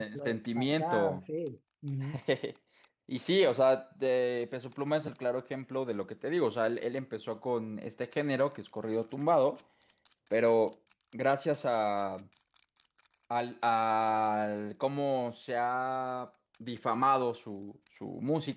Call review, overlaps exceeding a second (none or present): present